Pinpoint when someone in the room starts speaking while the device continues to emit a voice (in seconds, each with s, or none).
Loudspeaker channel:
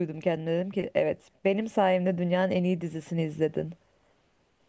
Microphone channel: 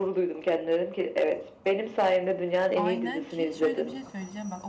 2.7 s